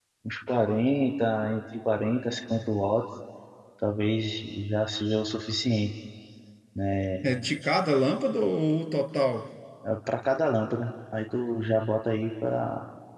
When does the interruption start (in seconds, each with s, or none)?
none